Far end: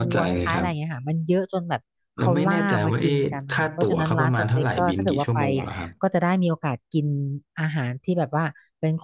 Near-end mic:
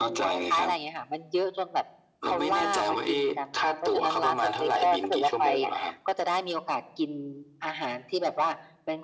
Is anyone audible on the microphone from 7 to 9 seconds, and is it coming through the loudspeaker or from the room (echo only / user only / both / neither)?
echo only